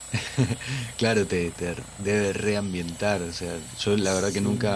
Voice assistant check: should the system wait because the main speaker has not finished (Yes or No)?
Yes